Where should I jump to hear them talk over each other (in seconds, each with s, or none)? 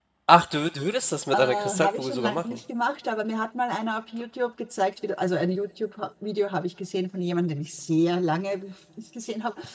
1.3 s